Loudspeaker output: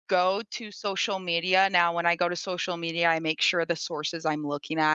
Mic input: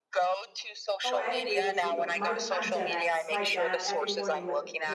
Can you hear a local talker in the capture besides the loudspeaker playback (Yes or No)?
Yes